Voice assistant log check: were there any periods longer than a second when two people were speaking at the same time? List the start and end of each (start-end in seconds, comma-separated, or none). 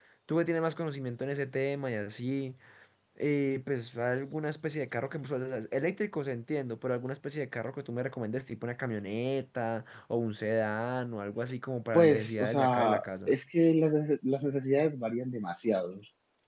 11.9-13.3